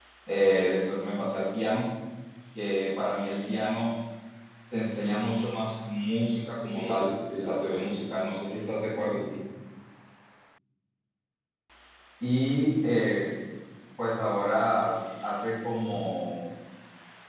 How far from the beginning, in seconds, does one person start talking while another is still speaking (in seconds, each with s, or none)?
6.8 s